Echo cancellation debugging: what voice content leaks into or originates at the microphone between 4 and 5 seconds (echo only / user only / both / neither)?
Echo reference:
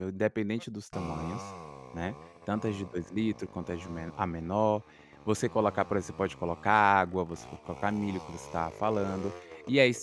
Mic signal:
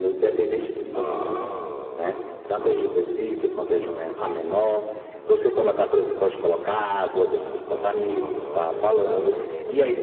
echo only